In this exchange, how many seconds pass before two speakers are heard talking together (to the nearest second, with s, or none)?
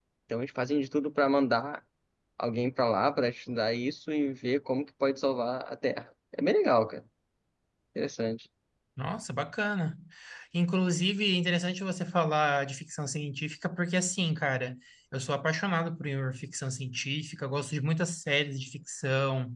none